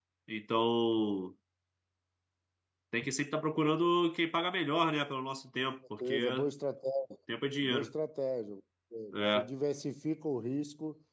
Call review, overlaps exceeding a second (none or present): none